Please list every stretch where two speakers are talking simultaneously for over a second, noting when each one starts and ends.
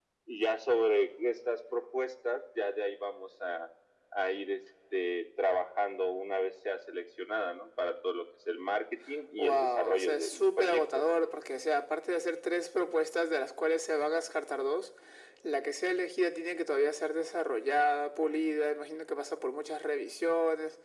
9.4-11.0

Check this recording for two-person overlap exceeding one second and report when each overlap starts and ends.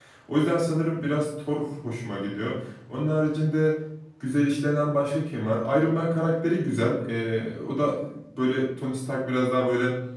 none

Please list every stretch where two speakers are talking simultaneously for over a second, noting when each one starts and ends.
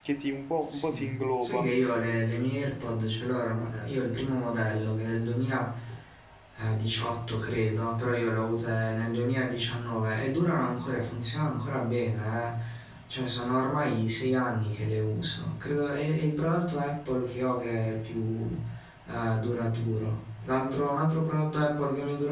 none

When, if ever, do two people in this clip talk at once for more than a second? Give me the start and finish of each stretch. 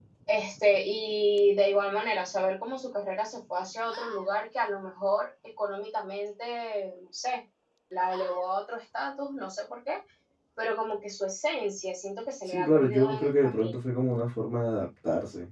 12.5-13.8

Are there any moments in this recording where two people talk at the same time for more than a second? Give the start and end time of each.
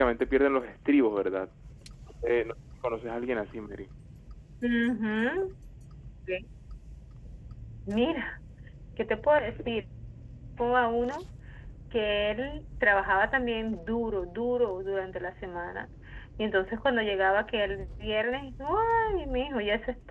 none

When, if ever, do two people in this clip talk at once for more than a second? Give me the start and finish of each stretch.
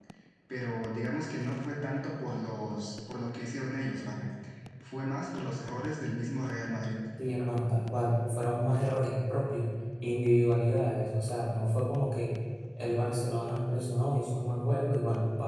none

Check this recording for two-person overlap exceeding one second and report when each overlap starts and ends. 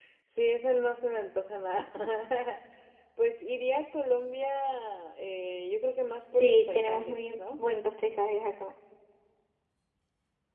6.3-7.6

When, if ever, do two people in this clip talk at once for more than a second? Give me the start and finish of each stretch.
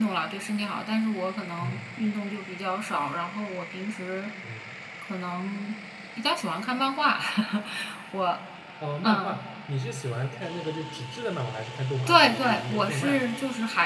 12.1-13.3

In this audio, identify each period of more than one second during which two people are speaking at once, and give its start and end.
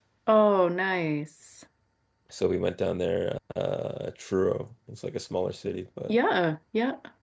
none

